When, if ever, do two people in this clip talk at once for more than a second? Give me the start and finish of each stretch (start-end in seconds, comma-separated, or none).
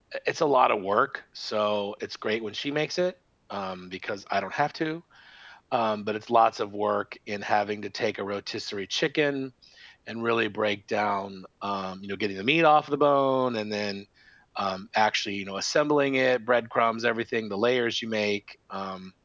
none